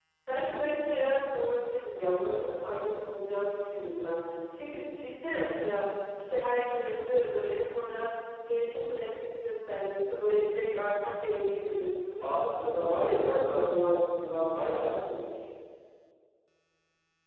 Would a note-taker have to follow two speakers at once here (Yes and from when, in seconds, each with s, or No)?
Yes, from 12.2 s